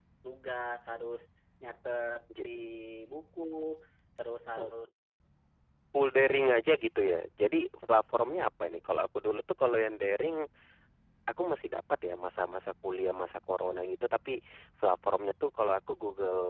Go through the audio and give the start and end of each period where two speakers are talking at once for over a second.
none

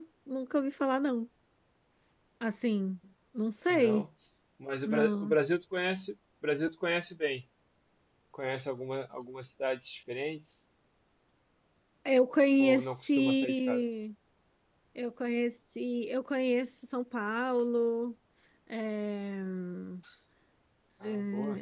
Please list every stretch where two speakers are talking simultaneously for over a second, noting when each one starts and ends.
12.6-13.8

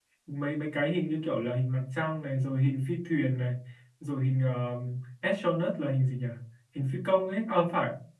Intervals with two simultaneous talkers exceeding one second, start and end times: none

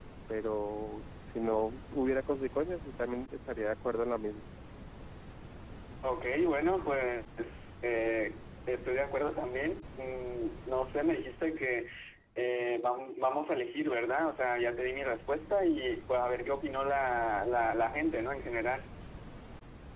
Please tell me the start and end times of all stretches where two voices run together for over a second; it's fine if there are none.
none

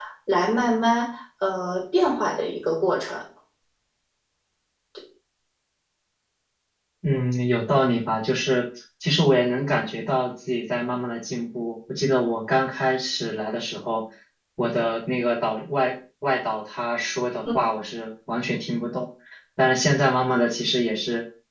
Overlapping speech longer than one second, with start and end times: none

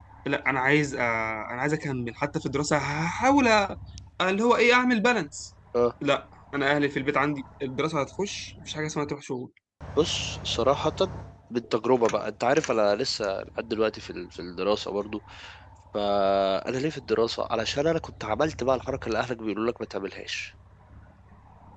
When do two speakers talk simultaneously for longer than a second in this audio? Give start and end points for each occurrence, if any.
none

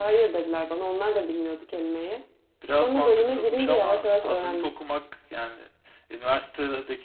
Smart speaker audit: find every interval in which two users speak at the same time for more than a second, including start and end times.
2.8-4.7

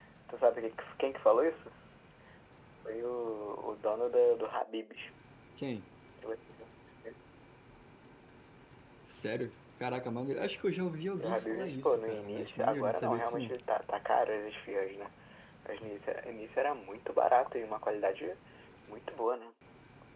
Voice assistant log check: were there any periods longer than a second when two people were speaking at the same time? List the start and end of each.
11.2-13.5

